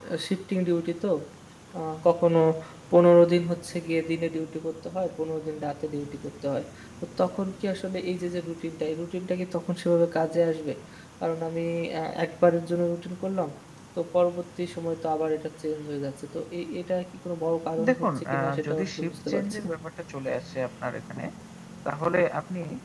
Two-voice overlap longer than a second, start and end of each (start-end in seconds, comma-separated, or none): 17.9-19.7